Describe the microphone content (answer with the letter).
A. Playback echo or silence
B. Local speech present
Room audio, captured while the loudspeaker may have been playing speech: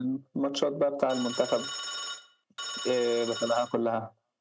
A